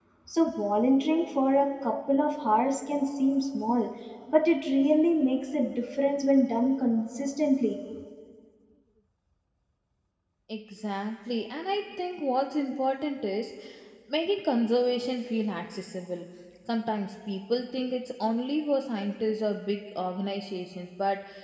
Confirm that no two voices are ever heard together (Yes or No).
Yes